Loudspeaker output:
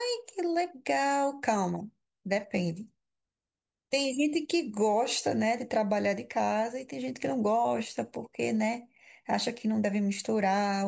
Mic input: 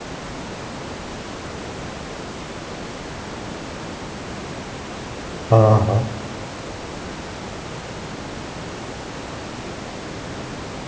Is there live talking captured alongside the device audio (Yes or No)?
Yes